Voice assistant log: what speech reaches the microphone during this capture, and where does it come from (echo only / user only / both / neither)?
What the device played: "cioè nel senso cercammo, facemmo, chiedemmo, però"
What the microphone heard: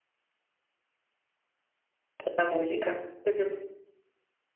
user only